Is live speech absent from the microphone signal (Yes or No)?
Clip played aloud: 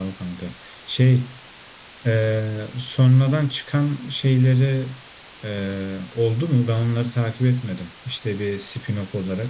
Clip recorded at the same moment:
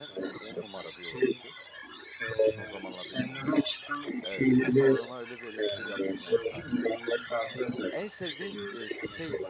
No